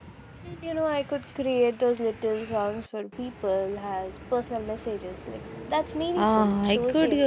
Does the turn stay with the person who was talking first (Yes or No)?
No